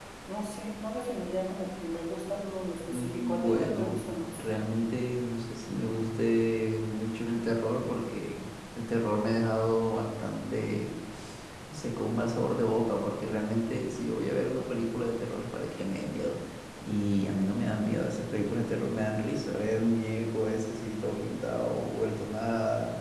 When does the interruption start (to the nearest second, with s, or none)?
3 s